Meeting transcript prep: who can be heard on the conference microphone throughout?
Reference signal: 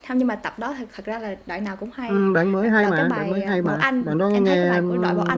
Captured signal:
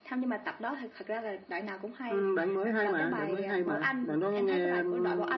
echo only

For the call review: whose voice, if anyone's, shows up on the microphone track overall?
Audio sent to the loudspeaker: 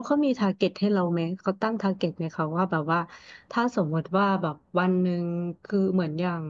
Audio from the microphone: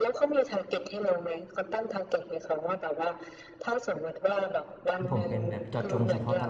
both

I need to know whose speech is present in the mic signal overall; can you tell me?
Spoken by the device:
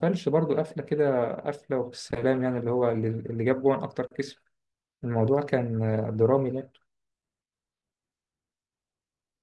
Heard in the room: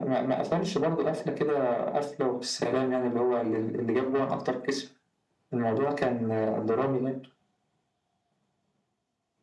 echo only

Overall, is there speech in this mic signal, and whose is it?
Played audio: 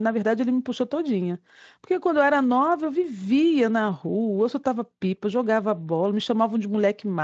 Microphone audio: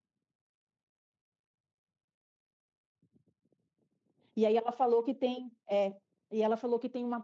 user only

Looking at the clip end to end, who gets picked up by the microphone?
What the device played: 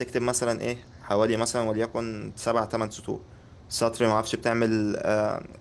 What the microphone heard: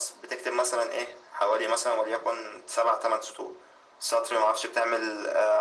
echo only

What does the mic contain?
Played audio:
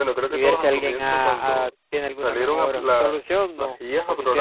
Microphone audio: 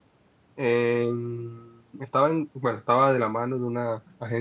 user only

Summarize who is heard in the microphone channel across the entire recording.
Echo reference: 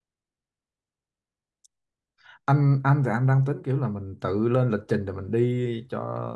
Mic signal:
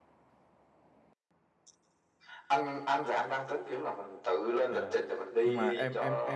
both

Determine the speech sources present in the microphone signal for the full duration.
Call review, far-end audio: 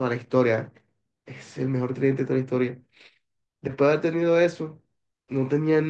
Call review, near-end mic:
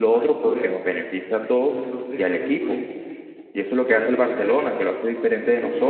both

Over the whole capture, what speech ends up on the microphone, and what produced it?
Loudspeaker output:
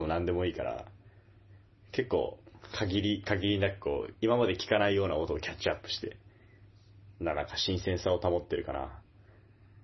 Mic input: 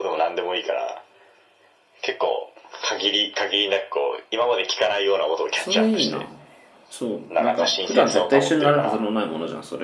both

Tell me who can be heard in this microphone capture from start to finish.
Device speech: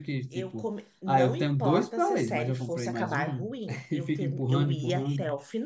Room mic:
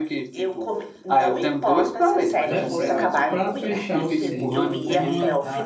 both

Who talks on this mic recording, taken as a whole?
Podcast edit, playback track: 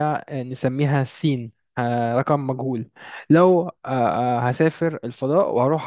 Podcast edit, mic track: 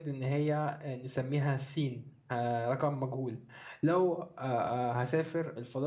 echo only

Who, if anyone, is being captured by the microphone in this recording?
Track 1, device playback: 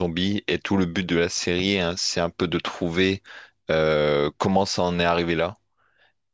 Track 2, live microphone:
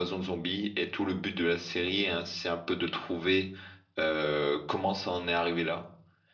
echo only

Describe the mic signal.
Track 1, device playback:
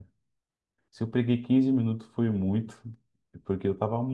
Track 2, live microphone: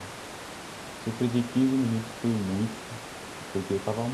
echo only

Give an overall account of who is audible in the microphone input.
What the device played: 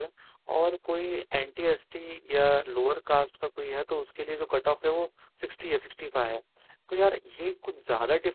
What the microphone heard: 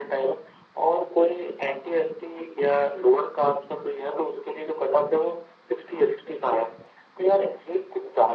echo only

